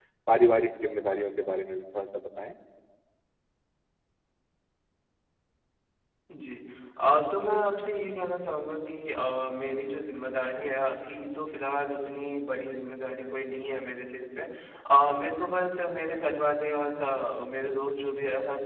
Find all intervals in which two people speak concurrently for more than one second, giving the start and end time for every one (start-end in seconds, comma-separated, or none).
none